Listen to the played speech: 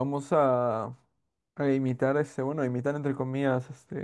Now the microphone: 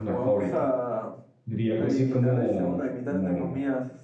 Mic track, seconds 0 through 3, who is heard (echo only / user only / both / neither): both